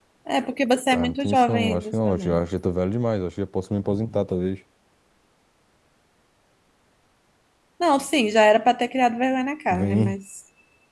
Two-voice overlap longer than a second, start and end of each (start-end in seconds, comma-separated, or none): 0.9-2.4